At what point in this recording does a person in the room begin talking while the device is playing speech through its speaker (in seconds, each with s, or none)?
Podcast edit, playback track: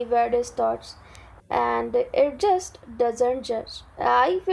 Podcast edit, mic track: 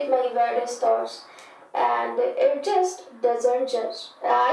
none